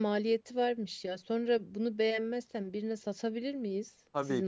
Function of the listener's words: taking over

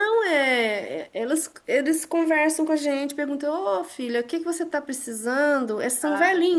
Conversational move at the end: listening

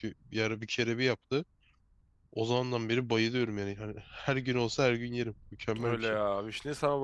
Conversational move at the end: taking over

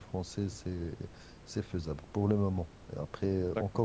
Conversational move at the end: listening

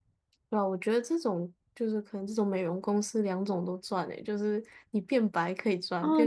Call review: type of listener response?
taking over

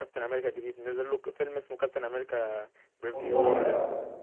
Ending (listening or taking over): taking over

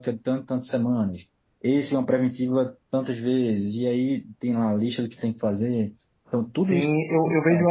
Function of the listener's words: taking over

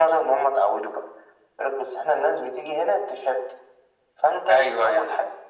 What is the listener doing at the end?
listening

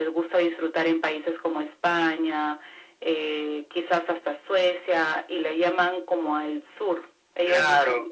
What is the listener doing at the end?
taking over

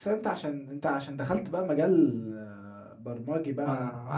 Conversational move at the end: taking over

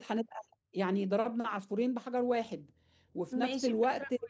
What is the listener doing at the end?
taking over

